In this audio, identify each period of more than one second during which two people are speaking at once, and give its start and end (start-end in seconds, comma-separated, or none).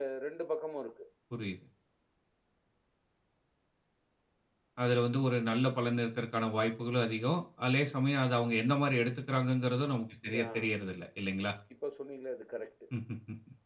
none